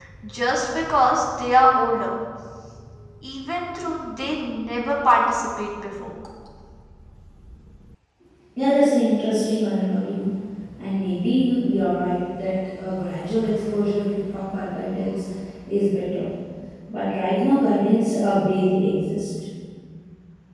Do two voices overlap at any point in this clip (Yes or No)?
No